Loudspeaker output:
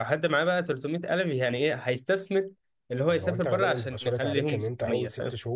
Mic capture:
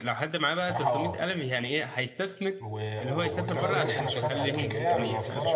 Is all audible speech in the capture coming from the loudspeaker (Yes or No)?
No